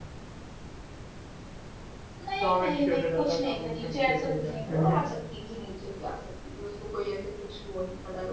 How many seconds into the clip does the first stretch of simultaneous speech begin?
2.4 s

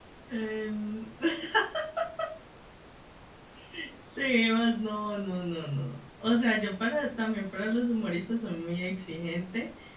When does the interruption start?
none

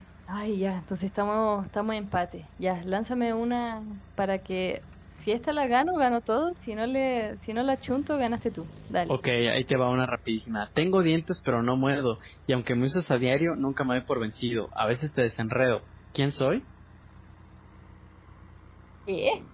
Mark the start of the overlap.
none

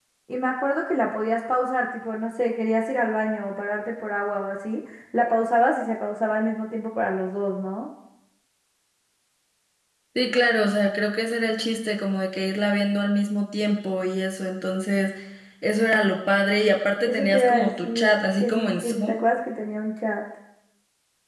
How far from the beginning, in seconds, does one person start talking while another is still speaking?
17.0 s

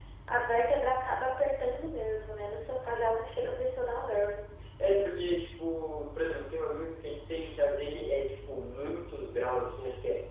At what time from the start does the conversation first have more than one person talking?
none

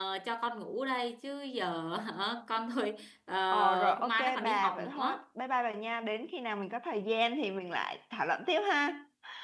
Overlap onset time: 3.5 s

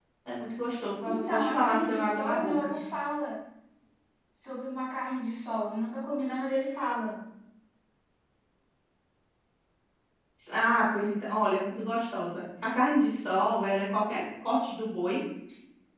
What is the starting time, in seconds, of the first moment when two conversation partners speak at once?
1.0 s

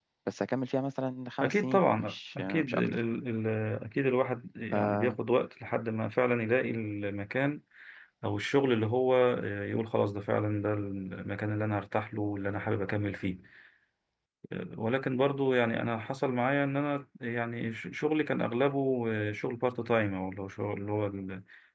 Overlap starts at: 1.4 s

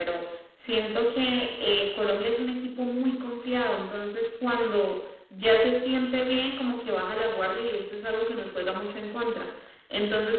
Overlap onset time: none

